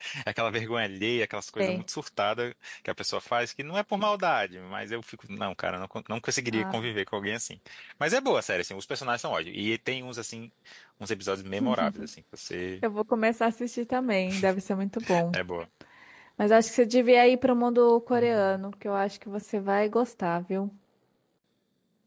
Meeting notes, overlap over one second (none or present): none